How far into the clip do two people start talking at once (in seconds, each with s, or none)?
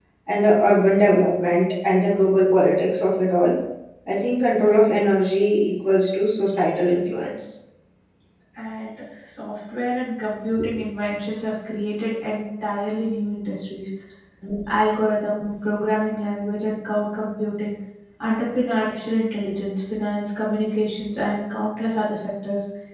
none